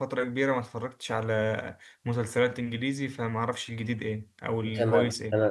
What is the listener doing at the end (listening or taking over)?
taking over